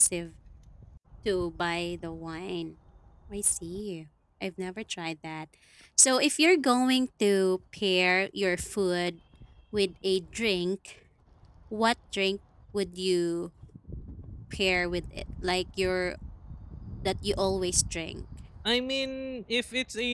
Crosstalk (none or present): none